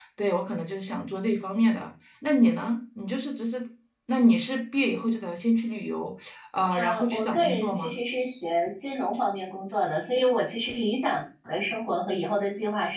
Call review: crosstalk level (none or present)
present